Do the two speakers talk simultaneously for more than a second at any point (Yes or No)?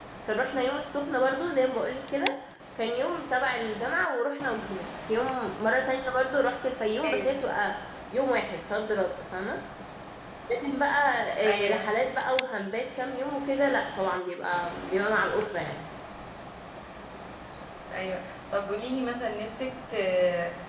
No